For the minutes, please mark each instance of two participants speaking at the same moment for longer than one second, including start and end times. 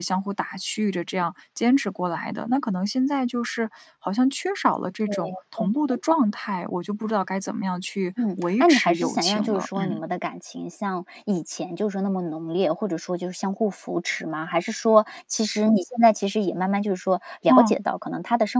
8.2-10.0

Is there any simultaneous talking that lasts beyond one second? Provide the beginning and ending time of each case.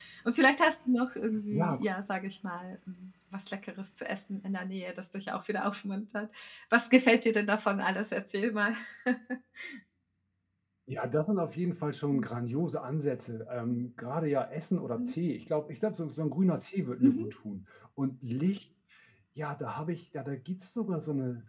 none

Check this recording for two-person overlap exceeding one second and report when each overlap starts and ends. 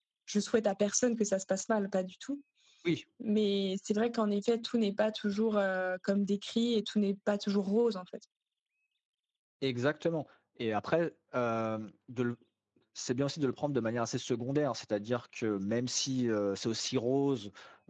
none

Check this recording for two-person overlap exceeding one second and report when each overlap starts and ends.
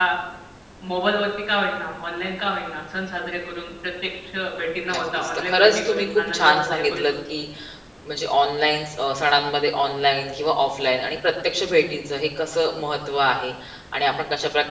4.9-7.1

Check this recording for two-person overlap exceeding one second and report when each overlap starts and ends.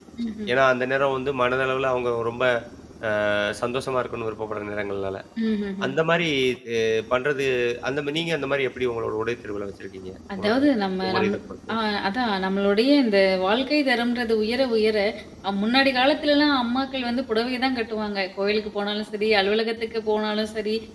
none

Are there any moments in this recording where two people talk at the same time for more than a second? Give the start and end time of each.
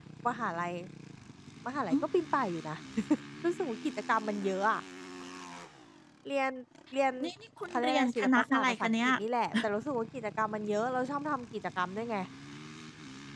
7.7-9.1

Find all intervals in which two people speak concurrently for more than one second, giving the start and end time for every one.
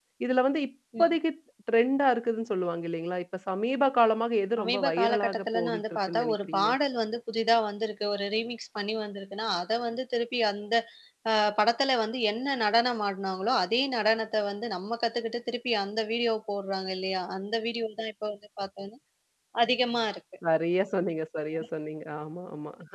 4.6-6.7

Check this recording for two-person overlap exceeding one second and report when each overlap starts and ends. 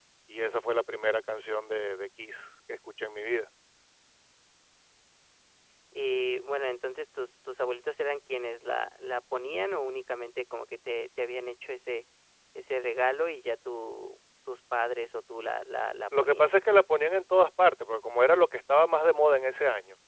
none

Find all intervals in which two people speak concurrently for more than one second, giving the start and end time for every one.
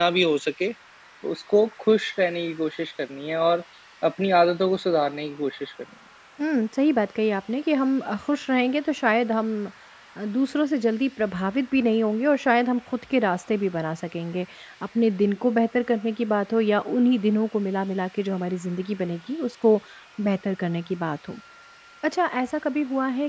none

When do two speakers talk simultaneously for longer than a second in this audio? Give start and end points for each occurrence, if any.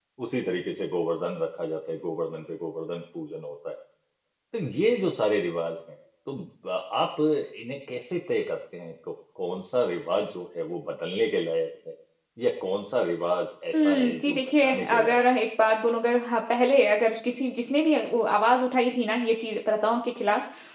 13.7-15.2

